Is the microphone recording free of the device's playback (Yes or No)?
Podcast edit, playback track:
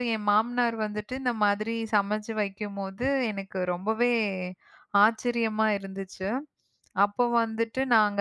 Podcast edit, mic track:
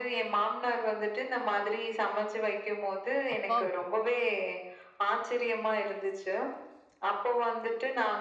No